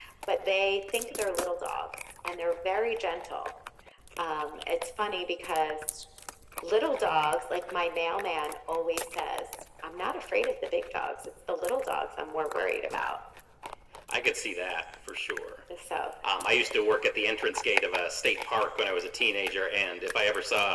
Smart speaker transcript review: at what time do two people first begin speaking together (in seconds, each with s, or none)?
none